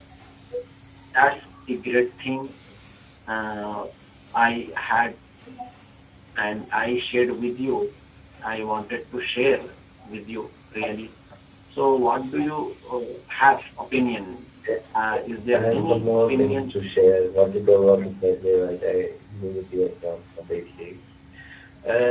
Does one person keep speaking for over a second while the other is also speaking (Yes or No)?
Yes